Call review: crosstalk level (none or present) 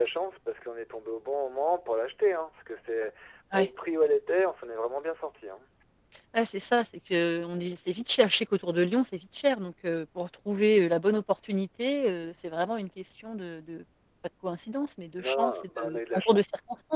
present